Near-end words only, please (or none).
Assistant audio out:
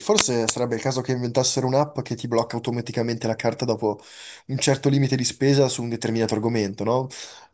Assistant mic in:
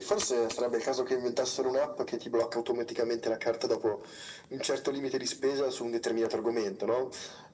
none